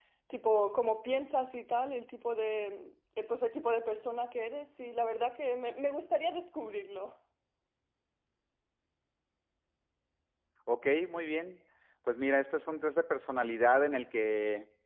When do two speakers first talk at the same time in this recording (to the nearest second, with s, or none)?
none